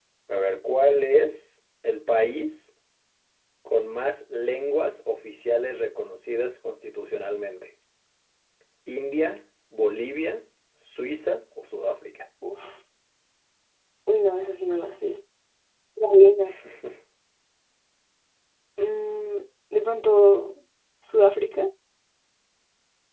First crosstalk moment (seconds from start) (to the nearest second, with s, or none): none